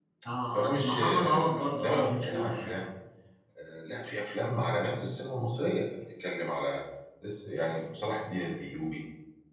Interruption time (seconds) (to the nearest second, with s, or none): 1 s